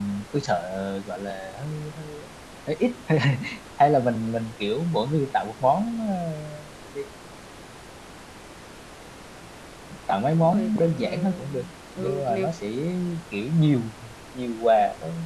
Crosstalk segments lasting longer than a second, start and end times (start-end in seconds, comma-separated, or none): 10.3-11.6